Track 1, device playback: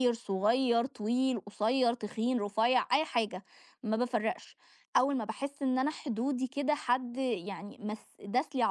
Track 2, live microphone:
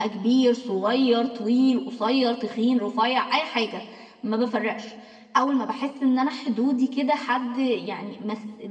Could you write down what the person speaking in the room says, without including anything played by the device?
none

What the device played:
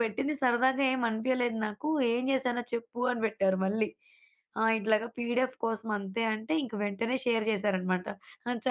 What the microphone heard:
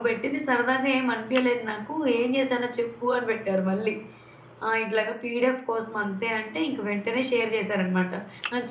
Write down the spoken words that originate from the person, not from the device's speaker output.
none

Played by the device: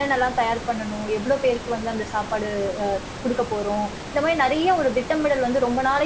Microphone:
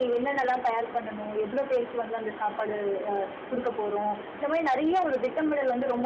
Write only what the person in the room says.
none

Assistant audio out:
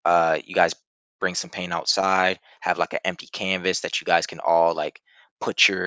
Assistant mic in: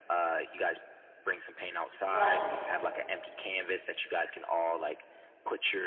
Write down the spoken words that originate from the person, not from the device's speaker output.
Right.

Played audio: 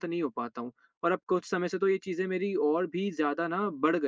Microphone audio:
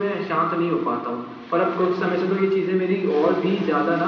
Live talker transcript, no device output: none

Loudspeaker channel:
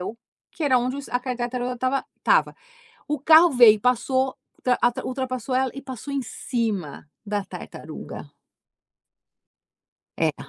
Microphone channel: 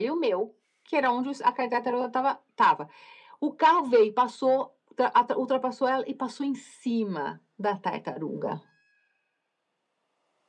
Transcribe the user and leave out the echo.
none

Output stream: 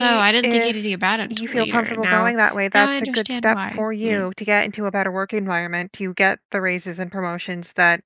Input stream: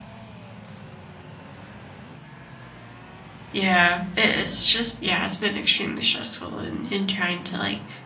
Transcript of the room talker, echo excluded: Yeah, it, it's just yeah, it's been extremely stressful and in in trying to like

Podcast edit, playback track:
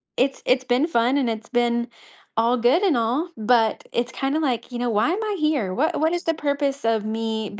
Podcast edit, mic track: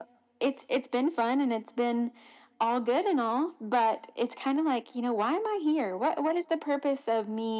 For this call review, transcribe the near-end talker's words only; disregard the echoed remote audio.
none

